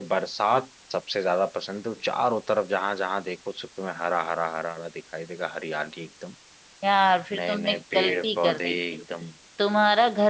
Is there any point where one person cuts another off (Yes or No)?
Yes